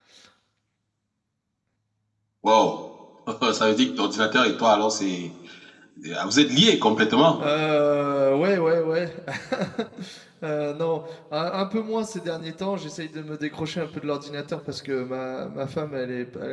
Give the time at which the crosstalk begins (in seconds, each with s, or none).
none